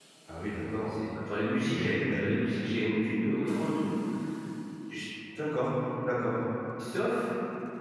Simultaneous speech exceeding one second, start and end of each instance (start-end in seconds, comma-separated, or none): none